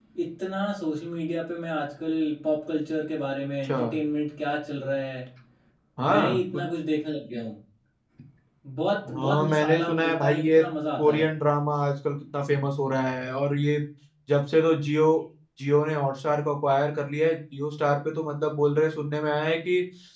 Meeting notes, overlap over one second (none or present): present